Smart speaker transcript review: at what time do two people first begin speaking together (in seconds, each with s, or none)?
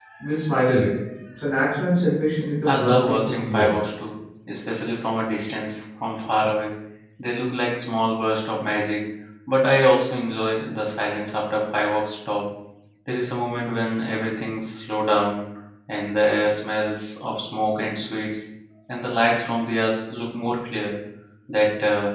2.7 s